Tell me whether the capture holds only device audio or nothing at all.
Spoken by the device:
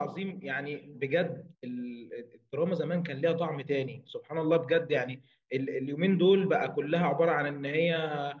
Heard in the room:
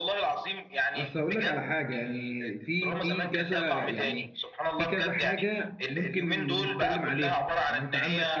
No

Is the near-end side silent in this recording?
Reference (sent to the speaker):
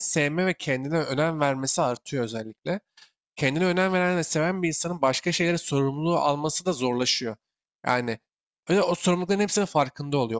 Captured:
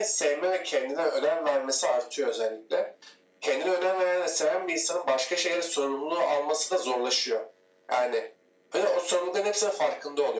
Yes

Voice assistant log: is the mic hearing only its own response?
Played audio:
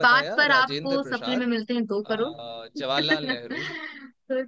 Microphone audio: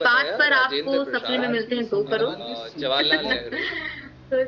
No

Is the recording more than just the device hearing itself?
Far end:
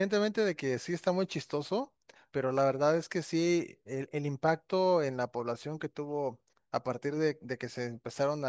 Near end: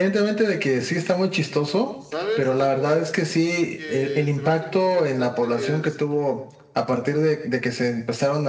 Yes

